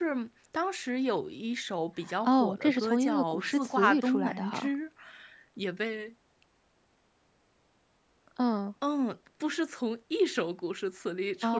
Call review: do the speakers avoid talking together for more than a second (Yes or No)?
No